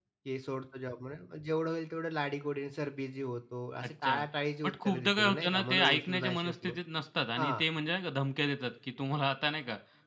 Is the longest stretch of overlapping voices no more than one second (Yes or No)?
No